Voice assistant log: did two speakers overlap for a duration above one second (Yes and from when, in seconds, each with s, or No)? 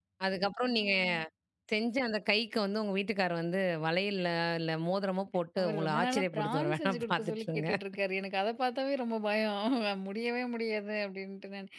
Yes, from 5.6 s